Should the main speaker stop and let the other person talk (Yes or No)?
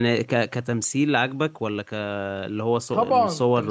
Yes